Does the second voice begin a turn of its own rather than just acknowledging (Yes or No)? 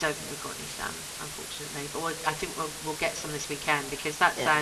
No